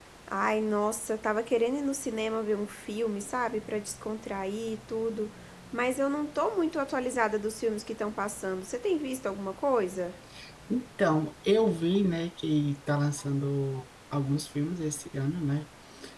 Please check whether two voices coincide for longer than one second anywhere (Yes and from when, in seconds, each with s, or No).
No